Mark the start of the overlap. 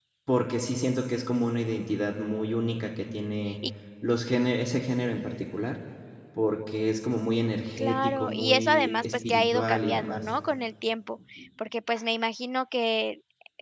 8 s

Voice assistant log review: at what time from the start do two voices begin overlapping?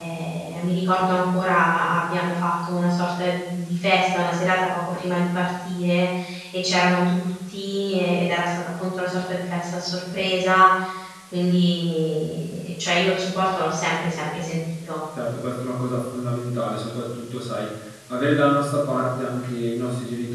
none

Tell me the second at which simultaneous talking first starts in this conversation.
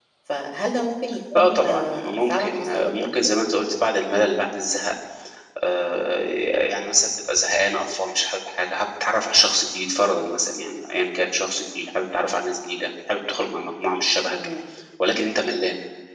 1 s

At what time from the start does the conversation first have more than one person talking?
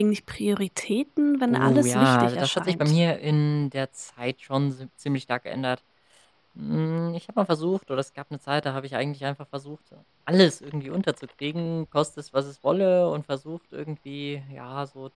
1 s

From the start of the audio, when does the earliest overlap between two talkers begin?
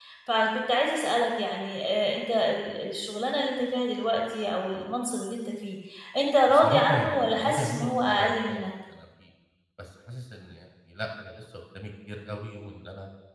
6 s

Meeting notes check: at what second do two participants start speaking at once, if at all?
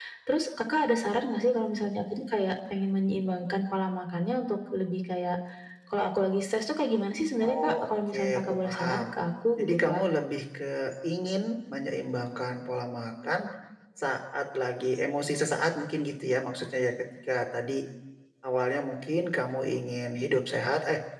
7 s

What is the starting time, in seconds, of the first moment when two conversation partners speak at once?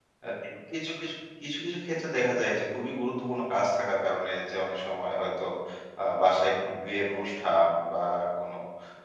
none

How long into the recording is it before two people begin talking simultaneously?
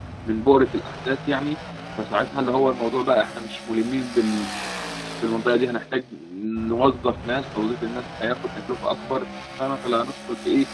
none

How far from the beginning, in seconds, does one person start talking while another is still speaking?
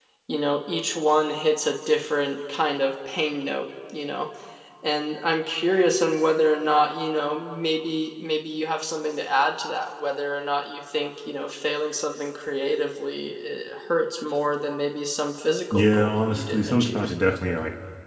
16 s

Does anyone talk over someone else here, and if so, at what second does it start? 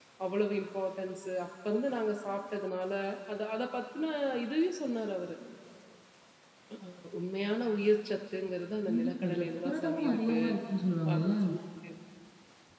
9 s

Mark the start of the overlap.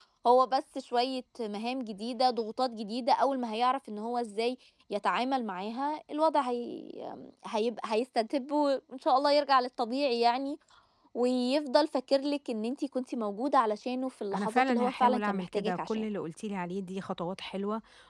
14 s

